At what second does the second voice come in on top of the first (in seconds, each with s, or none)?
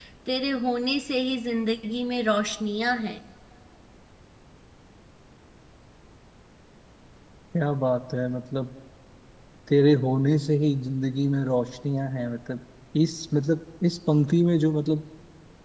none